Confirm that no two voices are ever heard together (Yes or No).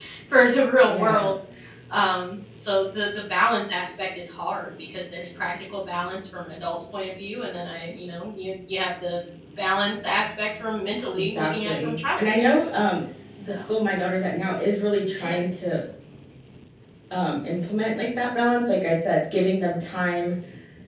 No